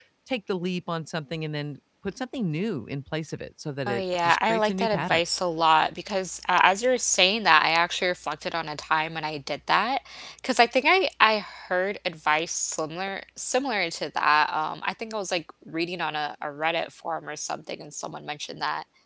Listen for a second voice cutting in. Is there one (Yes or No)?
Yes